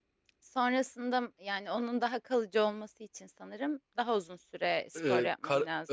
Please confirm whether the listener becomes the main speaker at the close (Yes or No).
Yes